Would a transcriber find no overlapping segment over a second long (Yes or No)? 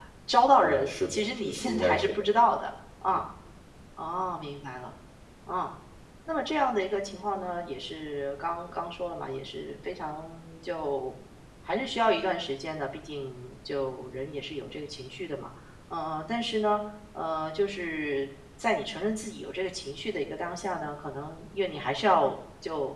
No